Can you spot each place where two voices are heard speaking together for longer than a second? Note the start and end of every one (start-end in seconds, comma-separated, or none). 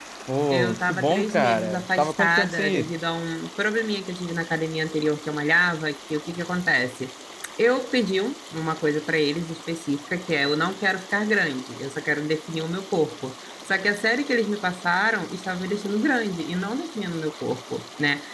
0.5-2.9